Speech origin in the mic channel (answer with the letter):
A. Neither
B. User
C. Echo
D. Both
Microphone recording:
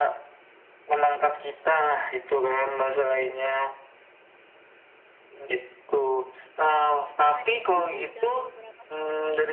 D